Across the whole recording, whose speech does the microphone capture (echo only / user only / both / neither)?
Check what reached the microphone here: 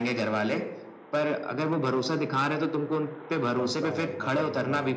both